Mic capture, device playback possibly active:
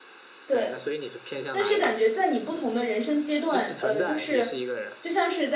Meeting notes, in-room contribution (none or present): present